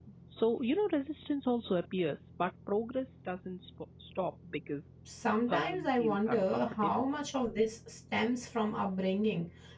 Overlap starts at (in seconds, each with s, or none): 5.4 s